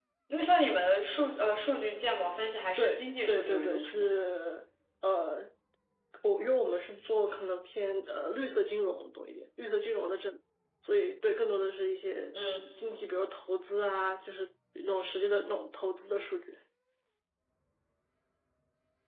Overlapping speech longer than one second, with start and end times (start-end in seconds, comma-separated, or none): 2.8-4.1